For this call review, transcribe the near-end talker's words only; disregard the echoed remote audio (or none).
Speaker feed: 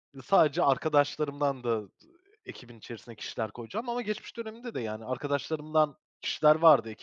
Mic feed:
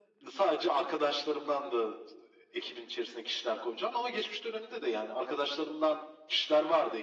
none